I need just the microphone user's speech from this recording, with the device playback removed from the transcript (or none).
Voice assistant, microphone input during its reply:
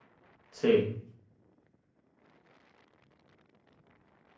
Sí,